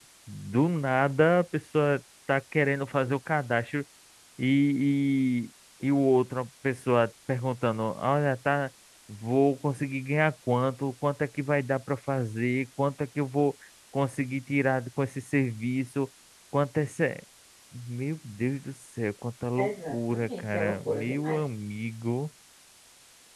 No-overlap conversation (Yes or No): No